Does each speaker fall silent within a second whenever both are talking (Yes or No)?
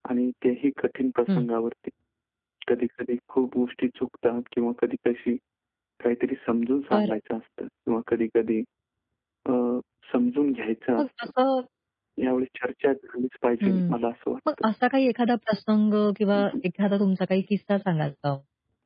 Yes